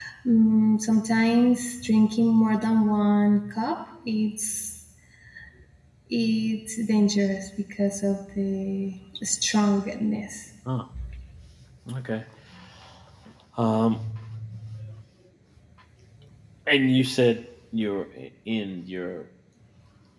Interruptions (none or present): none